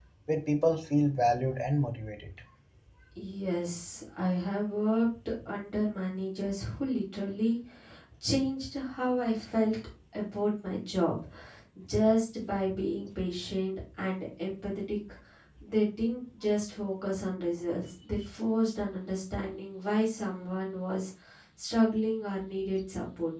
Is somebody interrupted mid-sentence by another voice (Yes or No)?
No